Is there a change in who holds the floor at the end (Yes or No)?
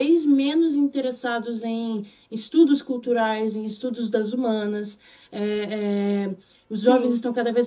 No